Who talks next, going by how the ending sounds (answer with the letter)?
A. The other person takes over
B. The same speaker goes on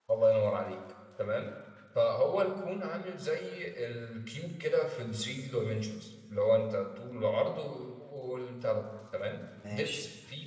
B